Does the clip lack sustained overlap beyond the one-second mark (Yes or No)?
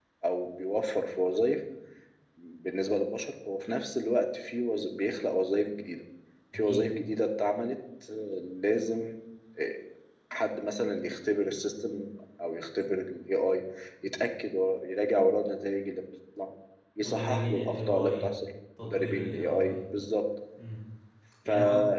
No